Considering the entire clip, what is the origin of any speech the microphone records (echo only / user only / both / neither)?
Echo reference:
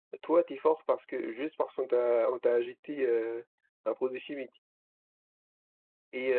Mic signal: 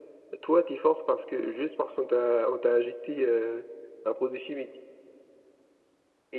echo only